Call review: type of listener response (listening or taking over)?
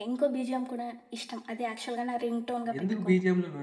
taking over